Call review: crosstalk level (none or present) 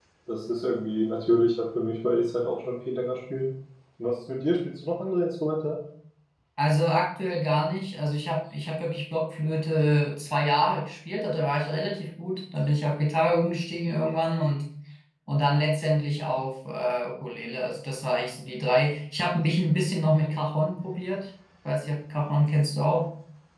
none